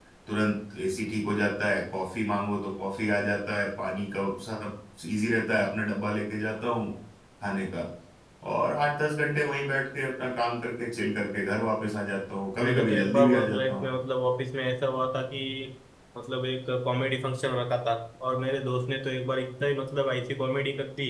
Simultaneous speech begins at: 12.6 s

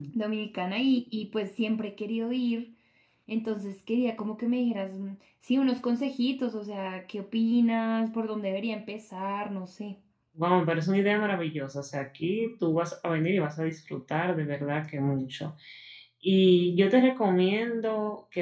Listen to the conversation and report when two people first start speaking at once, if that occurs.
none

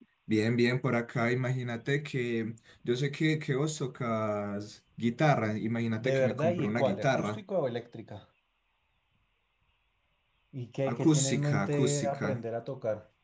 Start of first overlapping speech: 6.0 s

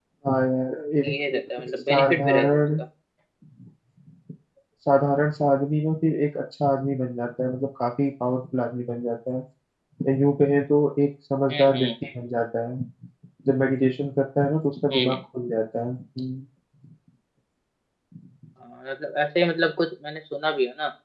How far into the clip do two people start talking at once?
1.0 s

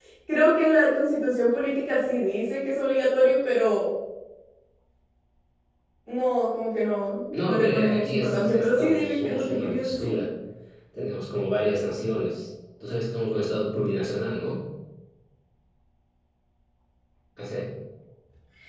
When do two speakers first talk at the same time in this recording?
7.3 s

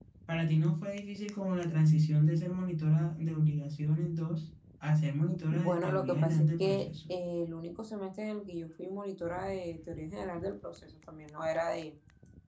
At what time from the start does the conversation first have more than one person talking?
5.5 s

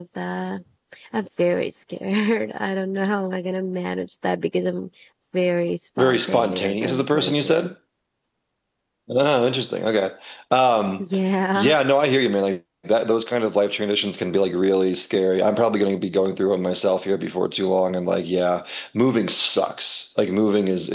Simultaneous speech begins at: 6.0 s

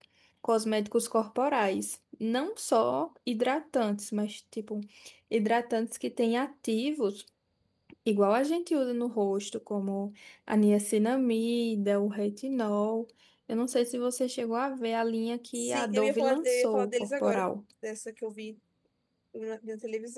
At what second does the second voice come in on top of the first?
15.5 s

